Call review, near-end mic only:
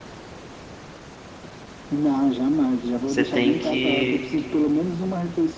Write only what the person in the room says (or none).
você tem que.